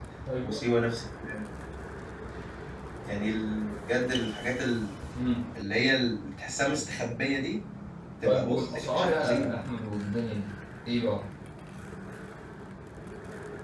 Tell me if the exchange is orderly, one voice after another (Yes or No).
No